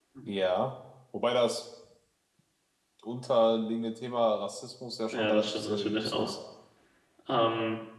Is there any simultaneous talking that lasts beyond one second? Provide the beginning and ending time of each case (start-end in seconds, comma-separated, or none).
5.1-6.3